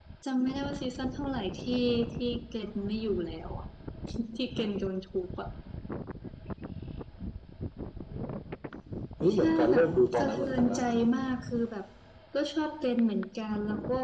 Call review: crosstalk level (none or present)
present